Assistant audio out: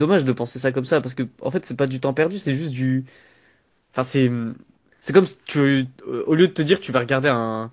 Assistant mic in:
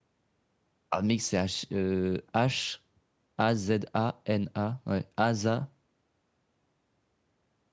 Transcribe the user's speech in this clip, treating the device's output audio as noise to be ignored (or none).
Ah mec, c'est H, euh, H A Z A N A, ouais, Asa